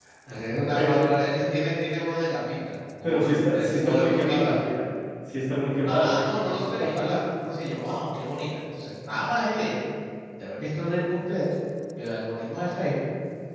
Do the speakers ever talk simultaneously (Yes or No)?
Yes